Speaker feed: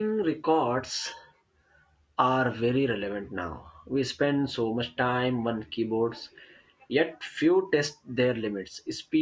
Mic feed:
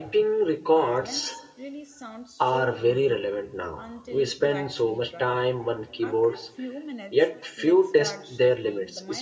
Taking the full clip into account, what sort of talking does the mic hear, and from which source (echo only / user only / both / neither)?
both